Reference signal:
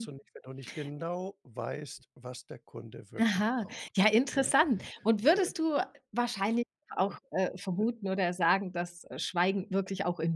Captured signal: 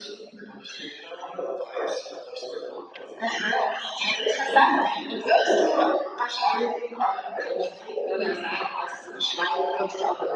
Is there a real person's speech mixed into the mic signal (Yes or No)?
No